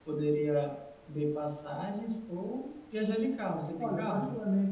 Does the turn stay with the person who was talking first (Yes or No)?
No